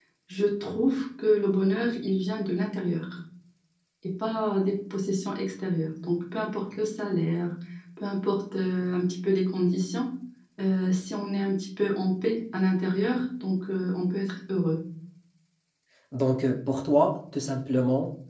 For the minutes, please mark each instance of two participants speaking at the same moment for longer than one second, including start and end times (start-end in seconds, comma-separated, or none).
none